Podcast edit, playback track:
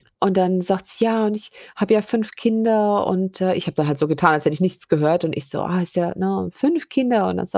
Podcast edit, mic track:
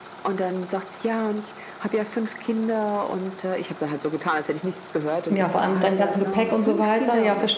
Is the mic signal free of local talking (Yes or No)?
No